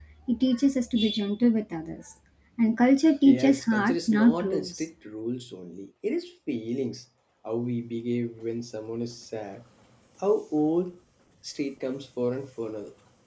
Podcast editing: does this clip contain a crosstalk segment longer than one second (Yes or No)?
Yes